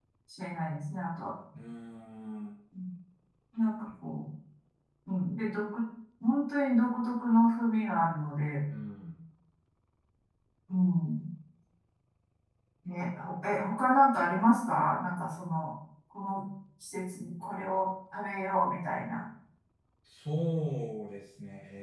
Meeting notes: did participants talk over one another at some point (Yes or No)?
No